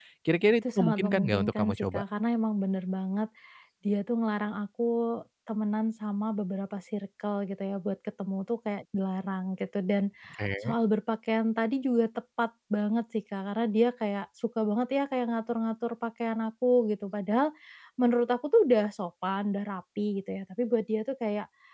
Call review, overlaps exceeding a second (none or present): present